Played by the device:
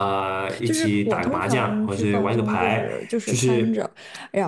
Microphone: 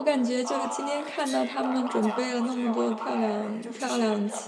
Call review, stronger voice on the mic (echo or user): user